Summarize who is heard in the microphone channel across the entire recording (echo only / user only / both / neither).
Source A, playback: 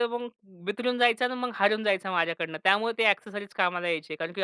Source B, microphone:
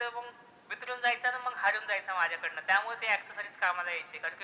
echo only